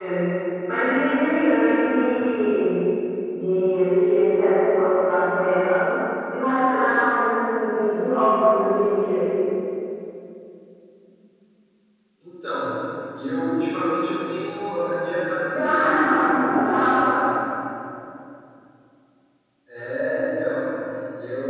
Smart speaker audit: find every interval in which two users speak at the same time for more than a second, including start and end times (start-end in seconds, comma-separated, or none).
15.4-17.0